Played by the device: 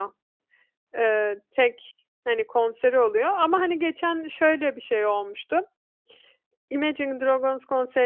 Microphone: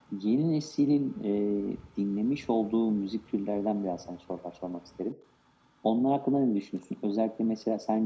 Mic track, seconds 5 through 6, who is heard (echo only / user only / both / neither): user only